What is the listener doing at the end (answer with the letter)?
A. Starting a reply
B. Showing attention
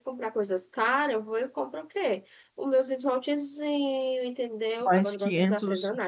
A